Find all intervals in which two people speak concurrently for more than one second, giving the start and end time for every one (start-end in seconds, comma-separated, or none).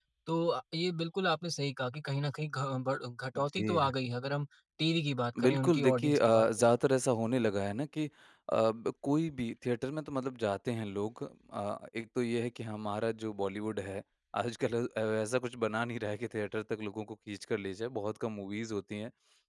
5.4-6.7